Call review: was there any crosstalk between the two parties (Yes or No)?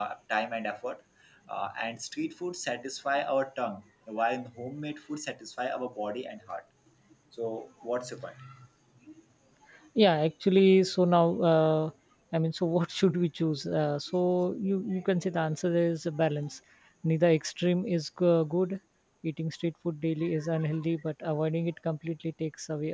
No